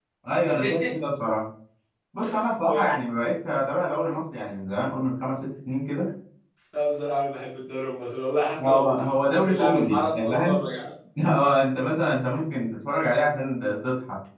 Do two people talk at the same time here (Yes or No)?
Yes